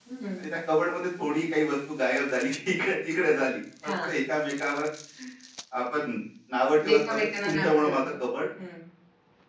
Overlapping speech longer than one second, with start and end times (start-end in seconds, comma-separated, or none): 6.9-8.1